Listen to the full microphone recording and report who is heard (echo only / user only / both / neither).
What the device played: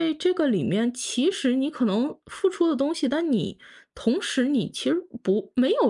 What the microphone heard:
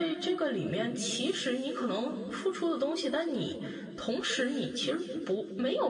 echo only